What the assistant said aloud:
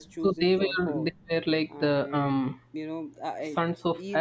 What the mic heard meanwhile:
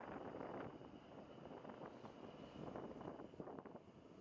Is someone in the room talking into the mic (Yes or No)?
No